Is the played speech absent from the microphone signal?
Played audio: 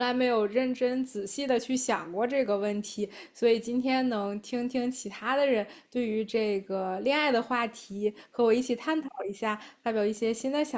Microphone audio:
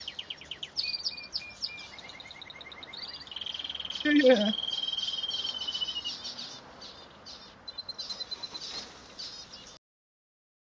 Yes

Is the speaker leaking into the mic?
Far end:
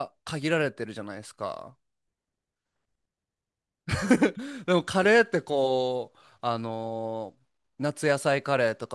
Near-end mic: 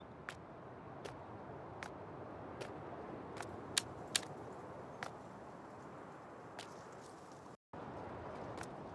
No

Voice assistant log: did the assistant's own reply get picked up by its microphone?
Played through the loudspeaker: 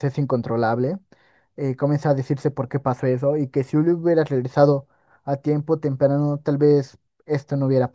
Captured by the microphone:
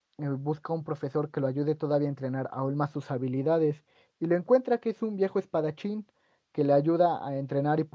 No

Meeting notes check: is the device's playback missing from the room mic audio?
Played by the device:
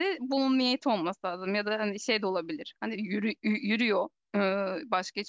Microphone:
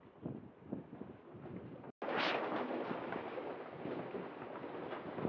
Yes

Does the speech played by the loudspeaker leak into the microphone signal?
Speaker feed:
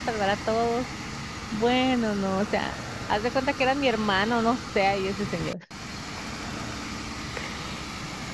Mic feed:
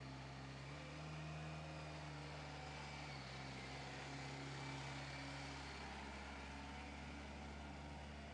No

